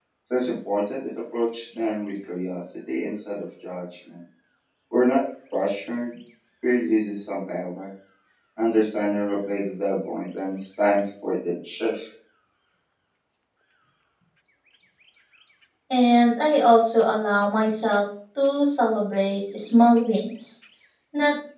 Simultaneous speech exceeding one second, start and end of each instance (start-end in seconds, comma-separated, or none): none